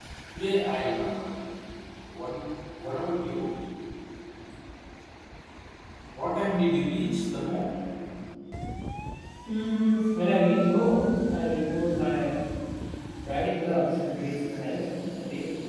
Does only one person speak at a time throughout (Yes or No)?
Yes